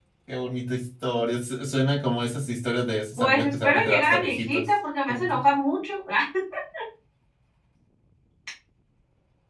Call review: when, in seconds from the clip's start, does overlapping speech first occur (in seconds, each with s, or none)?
3.2 s